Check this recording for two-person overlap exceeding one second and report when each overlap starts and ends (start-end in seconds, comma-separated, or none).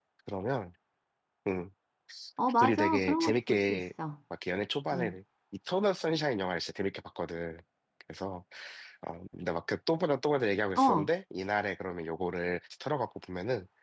2.6-3.9